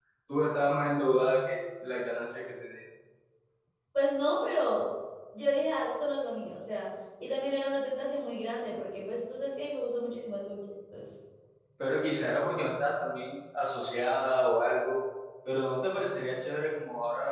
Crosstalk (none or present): none